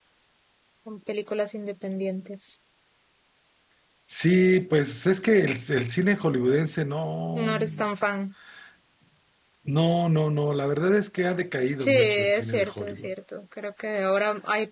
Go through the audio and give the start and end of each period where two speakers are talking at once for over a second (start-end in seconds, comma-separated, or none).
11.8-13.1